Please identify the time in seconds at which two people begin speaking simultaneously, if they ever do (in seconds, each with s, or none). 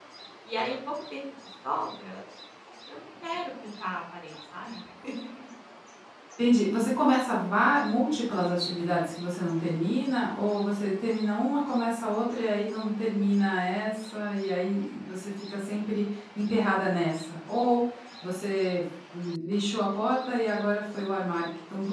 none